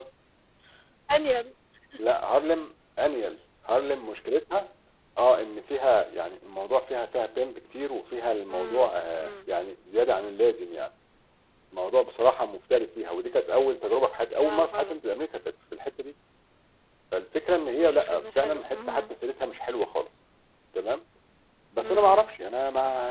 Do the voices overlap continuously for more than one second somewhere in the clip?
Yes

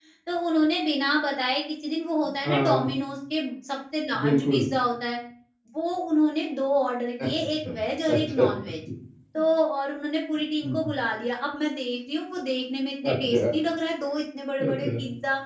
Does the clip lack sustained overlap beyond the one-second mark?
Yes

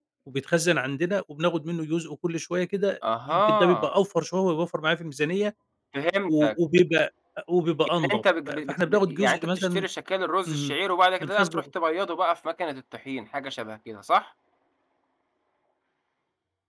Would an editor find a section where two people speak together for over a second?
Yes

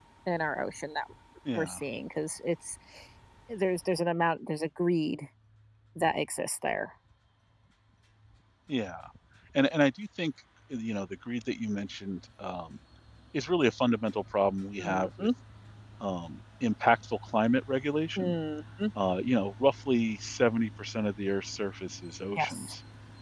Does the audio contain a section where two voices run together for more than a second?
No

